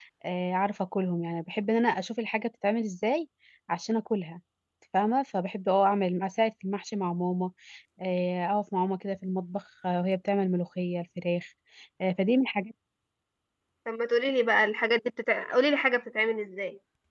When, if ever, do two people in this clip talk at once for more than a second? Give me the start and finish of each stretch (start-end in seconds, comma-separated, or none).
none